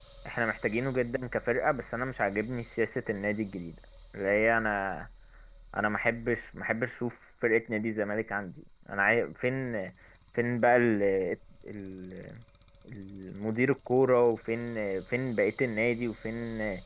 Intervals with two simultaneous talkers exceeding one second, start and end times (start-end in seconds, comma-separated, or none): none